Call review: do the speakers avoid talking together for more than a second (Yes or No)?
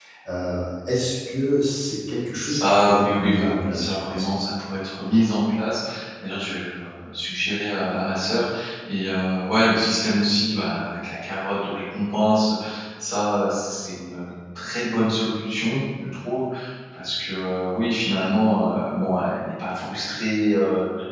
No